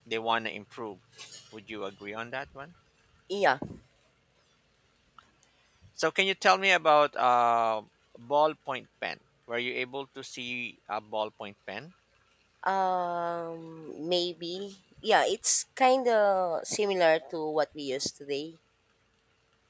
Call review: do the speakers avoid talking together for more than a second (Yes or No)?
Yes